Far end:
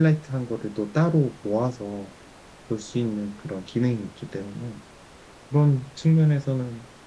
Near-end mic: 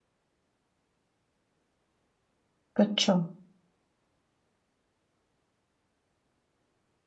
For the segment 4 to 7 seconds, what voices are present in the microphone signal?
neither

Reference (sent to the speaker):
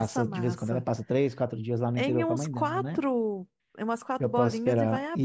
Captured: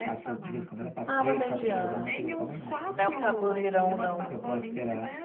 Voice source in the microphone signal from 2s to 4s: both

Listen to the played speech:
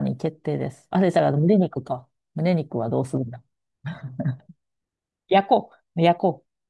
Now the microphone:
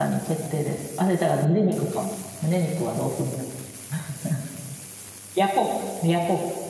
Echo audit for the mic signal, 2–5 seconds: echo only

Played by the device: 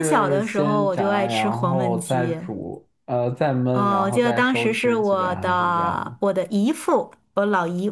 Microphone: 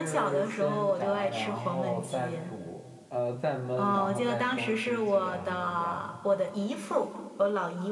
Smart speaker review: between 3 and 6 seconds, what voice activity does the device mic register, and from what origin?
echo only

